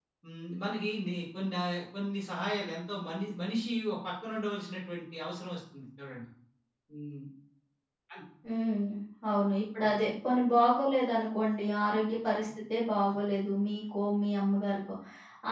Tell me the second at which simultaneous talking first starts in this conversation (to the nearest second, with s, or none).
none